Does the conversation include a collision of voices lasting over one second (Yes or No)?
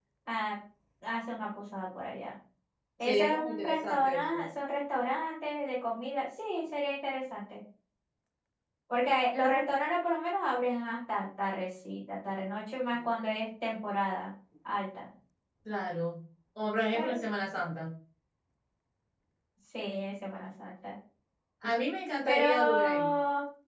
Yes